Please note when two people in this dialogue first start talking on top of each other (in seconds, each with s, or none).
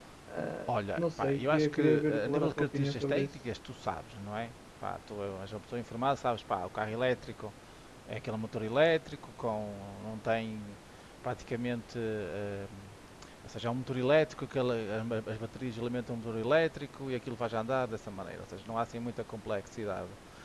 0.7 s